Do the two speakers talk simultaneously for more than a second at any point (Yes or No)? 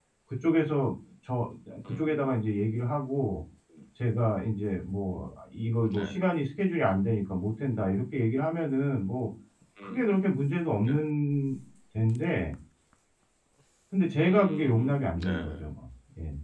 Yes